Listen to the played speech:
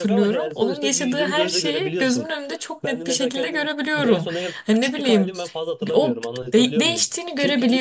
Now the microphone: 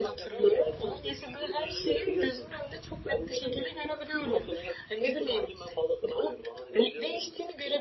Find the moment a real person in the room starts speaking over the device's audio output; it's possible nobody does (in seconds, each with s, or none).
none